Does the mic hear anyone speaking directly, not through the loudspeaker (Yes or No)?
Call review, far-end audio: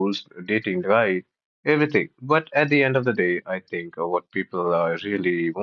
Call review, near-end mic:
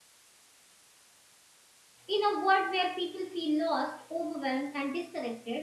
Yes